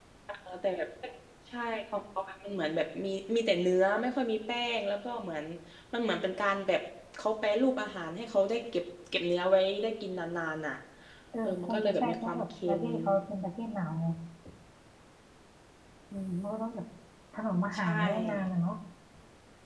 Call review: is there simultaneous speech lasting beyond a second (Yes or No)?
Yes